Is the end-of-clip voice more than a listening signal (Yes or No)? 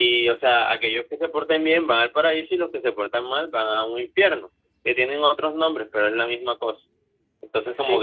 No